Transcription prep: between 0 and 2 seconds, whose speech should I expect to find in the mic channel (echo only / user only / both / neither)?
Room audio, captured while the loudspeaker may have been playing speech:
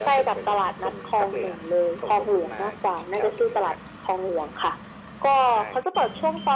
echo only